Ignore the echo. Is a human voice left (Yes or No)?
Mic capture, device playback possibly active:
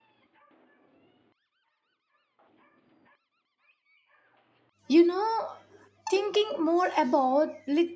Yes